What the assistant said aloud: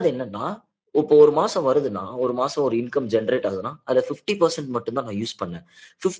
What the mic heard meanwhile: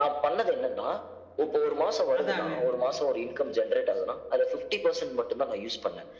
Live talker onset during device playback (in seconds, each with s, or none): 2.2 s